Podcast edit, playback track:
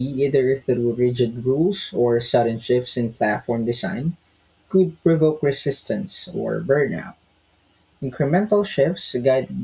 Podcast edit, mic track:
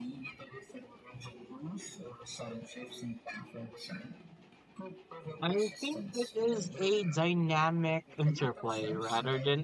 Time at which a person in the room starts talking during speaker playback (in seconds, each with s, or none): 5.4 s